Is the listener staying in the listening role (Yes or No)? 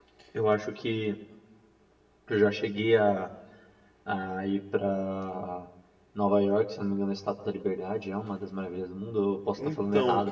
No